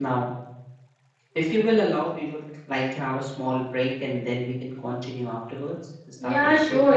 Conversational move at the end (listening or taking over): taking over